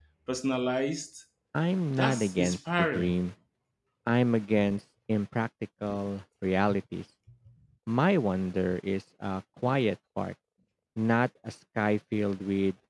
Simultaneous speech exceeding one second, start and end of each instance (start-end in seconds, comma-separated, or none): 2.0-3.2